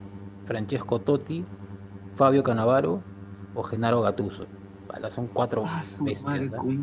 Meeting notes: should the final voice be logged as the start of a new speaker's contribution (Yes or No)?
Yes